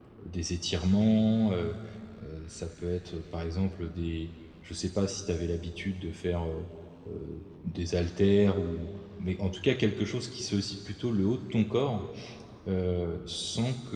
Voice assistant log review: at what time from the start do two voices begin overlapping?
none

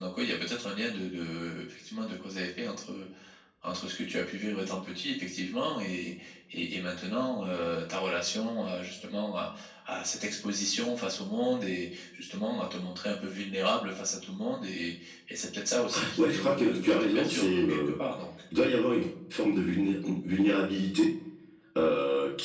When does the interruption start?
16 s

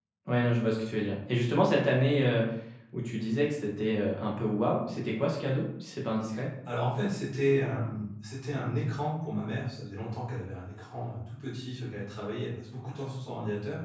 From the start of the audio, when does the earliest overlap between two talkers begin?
none

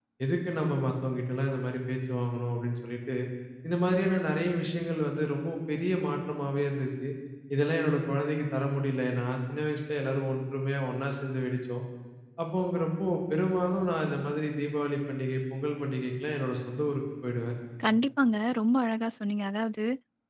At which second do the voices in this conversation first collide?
none

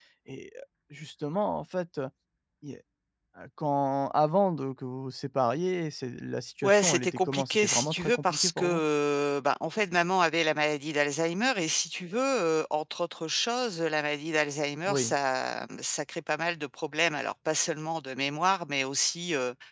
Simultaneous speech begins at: 7 s

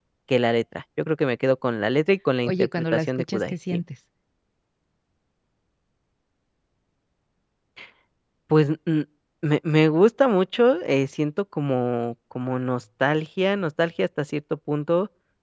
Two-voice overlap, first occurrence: 2 s

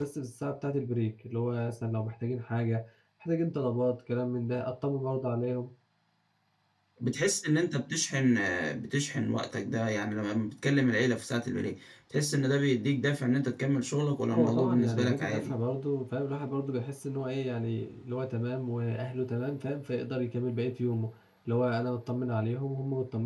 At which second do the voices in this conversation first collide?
14 s

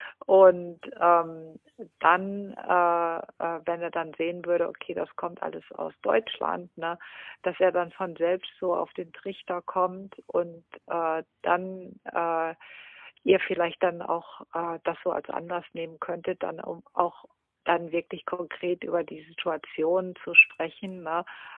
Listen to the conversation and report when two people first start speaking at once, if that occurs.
none

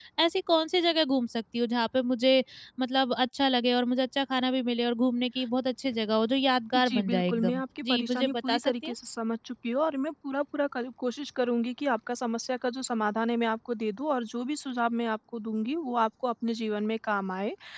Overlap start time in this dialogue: 7 s

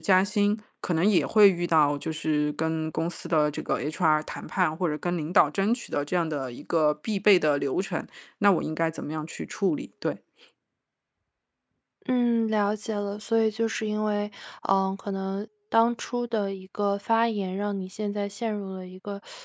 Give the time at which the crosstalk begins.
none

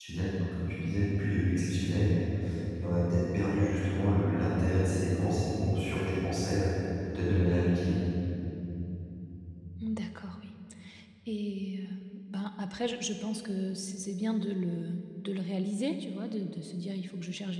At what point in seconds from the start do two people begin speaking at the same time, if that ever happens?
none

